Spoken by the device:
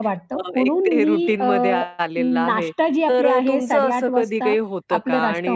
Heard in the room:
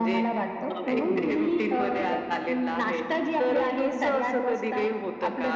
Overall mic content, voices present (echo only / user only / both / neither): both